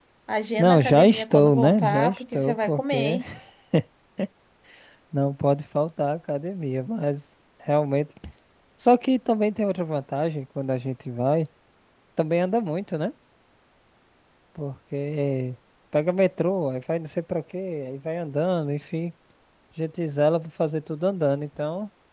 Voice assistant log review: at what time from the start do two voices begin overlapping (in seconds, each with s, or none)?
0.6 s